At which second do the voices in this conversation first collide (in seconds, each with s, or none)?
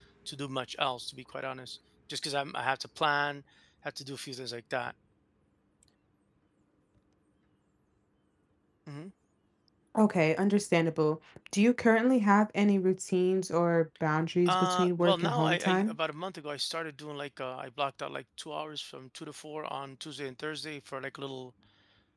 14.4 s